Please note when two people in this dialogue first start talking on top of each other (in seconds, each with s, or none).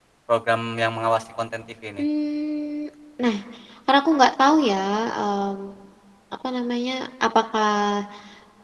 none